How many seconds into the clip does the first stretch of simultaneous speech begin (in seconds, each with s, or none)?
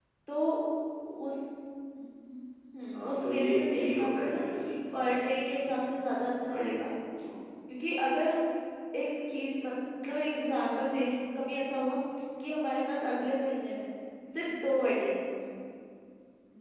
2.9 s